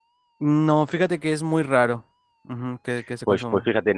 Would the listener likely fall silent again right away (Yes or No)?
No